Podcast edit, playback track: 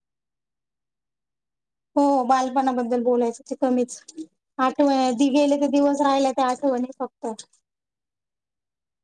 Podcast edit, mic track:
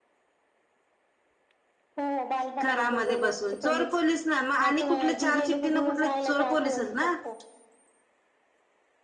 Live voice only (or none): घरामध्ये बसून चोर पोलीस ना मग आणि कुठल्या चार चिठ््टठी ना कुठले चोर पोलीसच ना